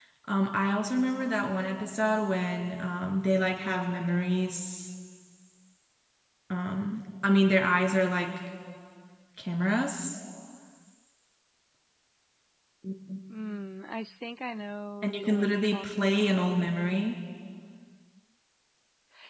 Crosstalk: present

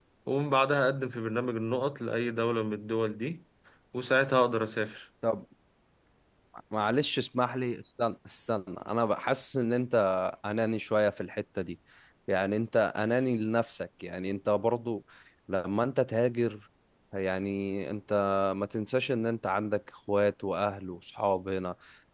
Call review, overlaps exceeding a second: none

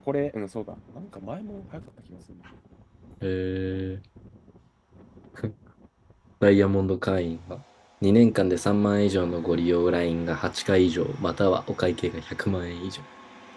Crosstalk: none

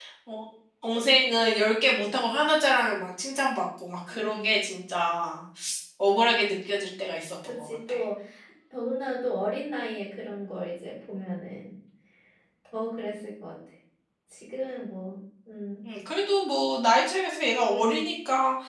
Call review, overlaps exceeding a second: none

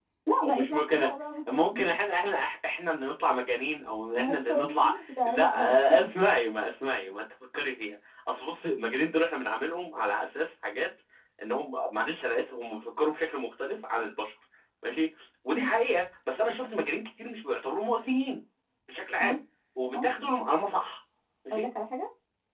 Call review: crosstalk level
present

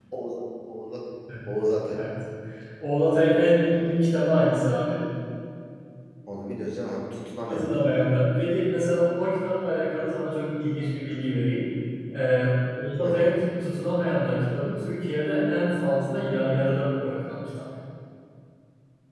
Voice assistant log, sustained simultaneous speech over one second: none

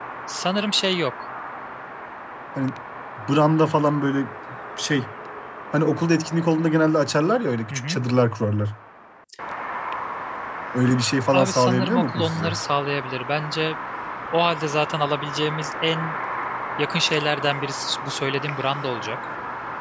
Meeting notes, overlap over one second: present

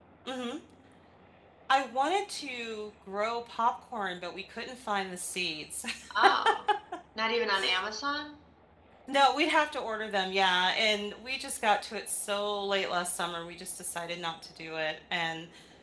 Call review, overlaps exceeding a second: none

